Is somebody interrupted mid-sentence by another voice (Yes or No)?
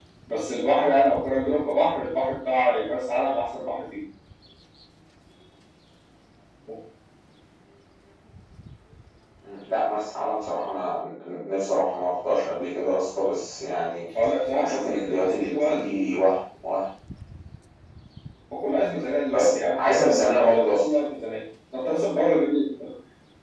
Yes